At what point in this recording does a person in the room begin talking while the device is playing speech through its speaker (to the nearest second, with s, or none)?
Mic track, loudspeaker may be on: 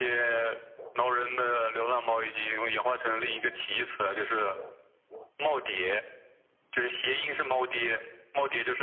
none